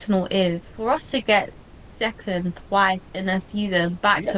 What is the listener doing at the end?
taking over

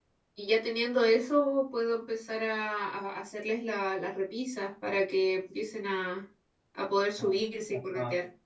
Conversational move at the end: taking over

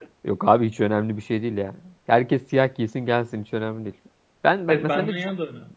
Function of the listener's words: taking over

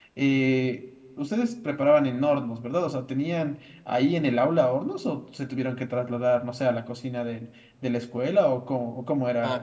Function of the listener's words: taking over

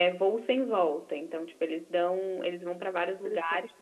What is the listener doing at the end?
listening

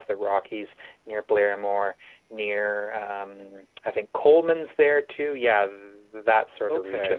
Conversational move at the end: taking over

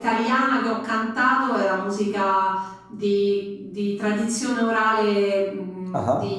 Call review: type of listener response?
listening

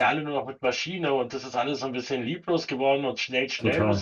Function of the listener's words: taking over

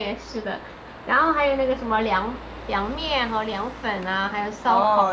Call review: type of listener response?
taking over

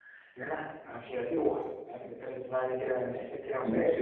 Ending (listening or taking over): taking over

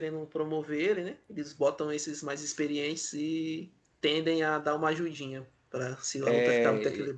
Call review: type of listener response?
taking over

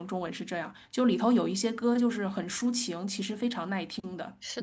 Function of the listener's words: taking over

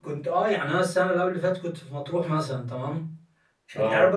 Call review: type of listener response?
listening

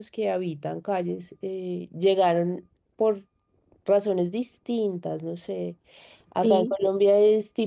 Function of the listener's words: listening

